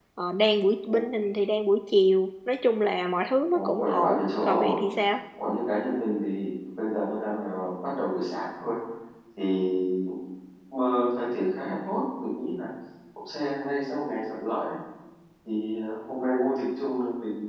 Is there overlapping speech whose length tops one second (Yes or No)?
Yes